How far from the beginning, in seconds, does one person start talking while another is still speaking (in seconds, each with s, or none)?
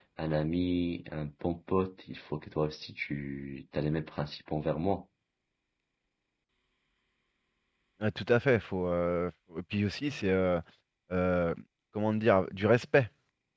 none